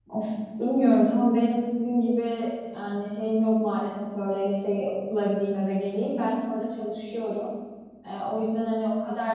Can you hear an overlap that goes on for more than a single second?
No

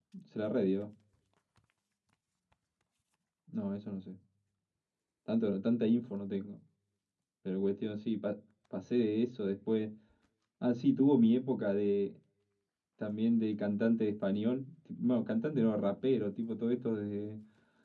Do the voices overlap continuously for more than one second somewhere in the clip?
No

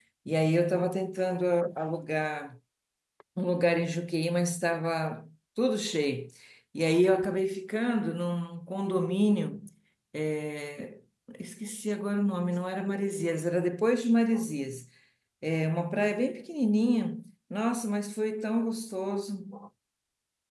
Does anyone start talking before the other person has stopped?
No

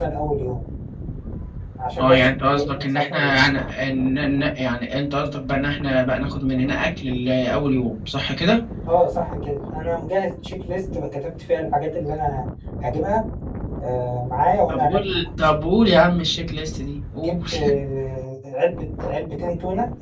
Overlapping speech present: Yes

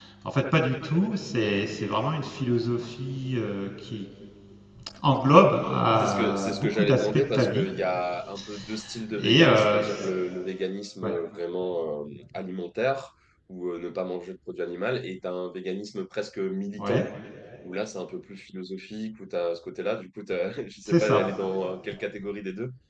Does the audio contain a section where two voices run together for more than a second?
Yes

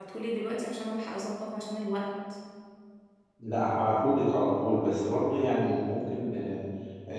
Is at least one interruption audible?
No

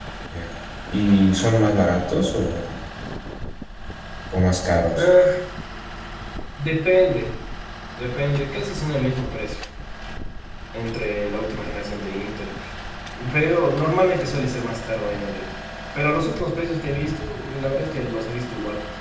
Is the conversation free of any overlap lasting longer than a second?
Yes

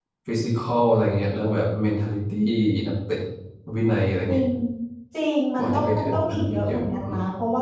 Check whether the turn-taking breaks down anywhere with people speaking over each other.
Yes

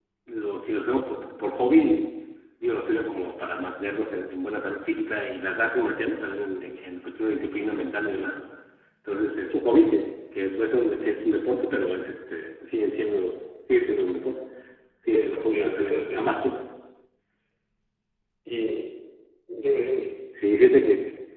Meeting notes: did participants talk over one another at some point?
Yes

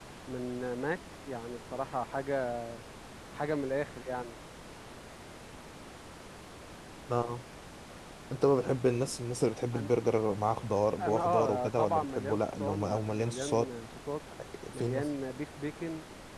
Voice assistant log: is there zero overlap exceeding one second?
No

